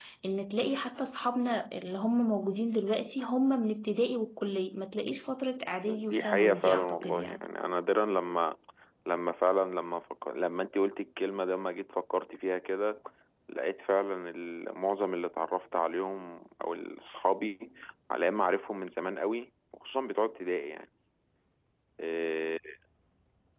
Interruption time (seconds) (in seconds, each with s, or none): 5.8 s